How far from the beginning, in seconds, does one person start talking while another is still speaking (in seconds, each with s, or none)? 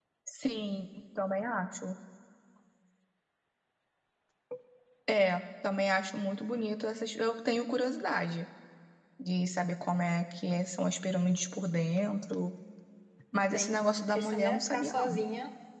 13.5 s